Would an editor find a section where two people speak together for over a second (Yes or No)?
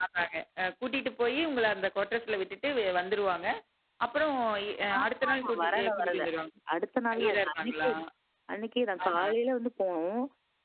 Yes